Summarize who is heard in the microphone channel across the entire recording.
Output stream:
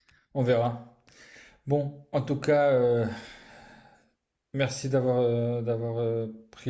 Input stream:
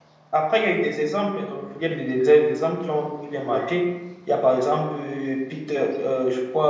user only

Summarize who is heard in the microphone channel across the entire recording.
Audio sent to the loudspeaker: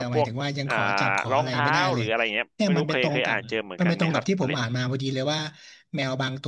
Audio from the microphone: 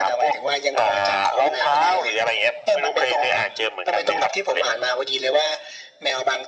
echo only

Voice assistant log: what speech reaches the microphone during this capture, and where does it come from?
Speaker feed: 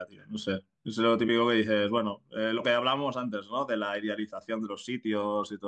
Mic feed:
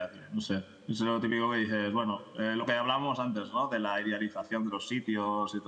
echo only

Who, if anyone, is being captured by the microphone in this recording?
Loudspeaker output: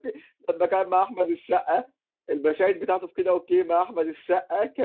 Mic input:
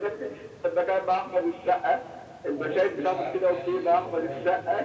both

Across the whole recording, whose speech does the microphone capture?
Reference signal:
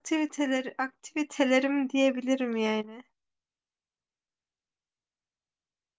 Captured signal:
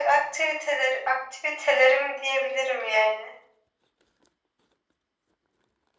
echo only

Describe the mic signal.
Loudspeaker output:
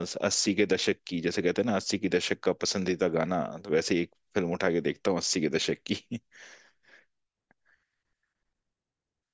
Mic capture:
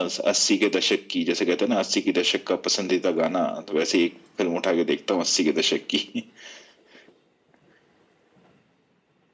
echo only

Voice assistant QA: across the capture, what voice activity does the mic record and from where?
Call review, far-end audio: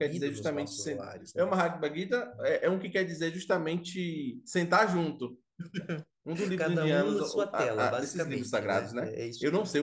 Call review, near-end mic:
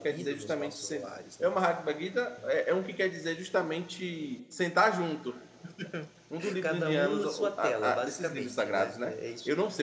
echo only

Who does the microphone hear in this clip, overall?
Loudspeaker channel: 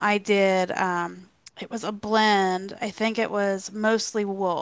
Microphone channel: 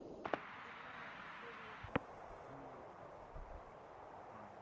neither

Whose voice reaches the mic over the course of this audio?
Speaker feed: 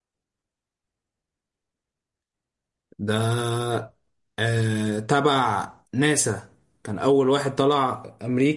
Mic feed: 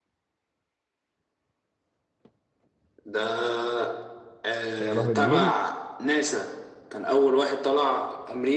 both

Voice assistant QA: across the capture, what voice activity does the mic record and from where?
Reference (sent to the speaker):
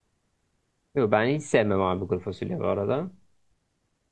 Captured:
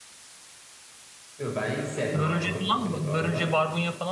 both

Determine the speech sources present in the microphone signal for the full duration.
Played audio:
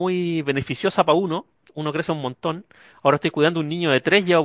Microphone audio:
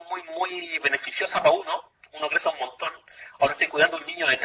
echo only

